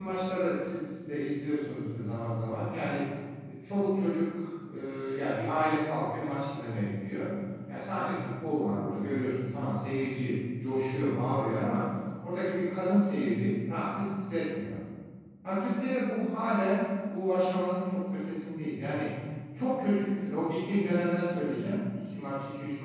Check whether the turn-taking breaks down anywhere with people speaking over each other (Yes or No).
No